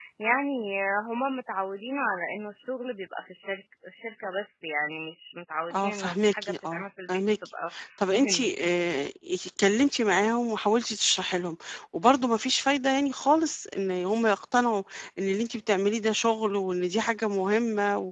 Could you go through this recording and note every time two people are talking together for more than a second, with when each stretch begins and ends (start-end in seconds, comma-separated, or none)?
5.7-7.4